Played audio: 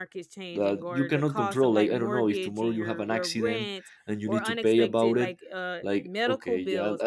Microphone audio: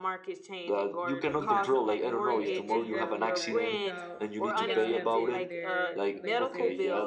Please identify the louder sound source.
echo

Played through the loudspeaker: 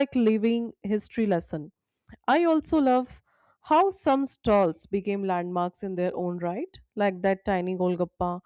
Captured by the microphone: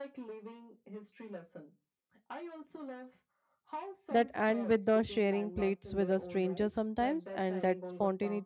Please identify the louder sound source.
user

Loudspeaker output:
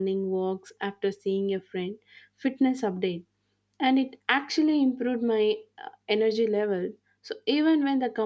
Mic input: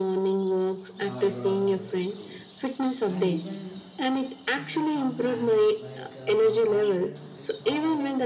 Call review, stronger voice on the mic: echo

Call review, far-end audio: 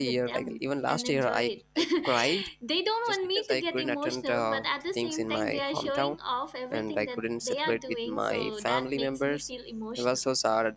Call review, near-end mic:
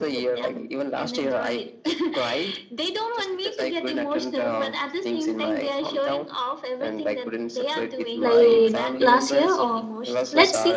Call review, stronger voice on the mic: user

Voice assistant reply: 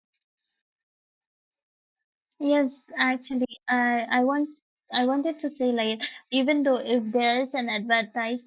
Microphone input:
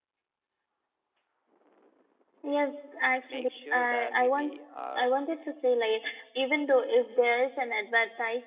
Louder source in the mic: echo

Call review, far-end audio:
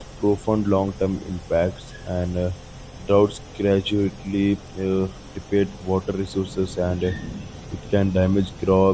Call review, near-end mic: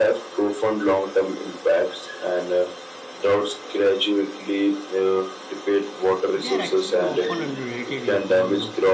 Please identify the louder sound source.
echo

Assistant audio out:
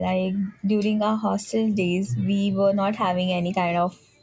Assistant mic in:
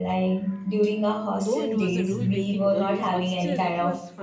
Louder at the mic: echo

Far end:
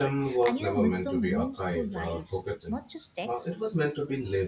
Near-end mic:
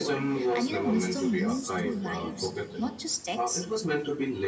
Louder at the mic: echo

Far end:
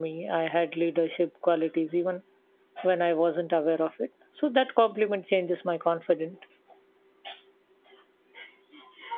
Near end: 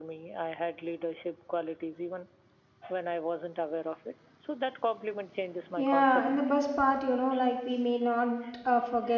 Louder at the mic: user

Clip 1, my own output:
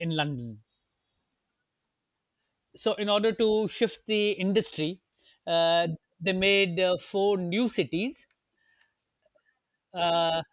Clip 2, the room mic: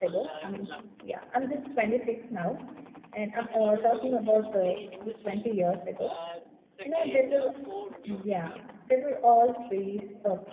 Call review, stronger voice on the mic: user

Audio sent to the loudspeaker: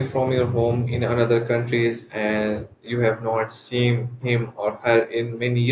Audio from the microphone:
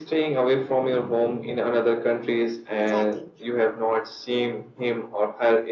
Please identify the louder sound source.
echo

